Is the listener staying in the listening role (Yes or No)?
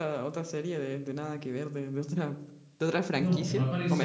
No